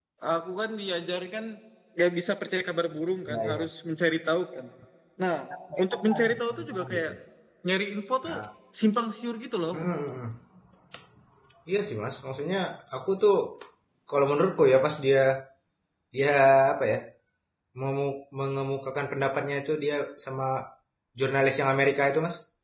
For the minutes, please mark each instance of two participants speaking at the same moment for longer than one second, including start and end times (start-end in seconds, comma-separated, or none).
5.8-7.1